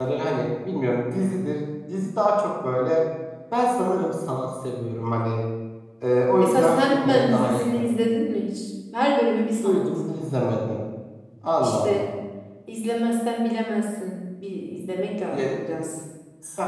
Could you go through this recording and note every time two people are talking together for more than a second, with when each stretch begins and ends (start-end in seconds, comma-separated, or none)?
6.4-7.9